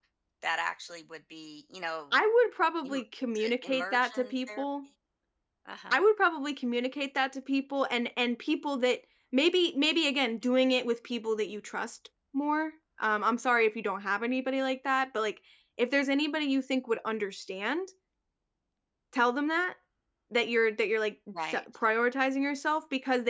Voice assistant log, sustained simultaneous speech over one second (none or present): present